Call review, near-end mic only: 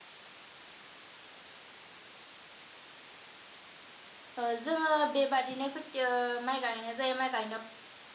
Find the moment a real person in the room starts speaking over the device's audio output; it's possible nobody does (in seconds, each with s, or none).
4.4 s